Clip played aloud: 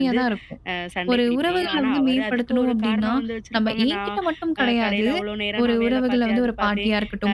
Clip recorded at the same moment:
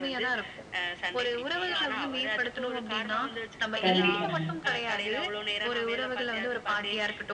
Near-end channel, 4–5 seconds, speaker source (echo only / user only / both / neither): both